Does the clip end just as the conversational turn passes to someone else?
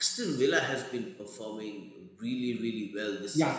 Yes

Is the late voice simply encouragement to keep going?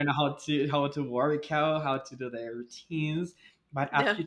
Yes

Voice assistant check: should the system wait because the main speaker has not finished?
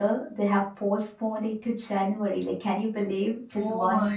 No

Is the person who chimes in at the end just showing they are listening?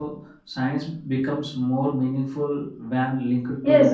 No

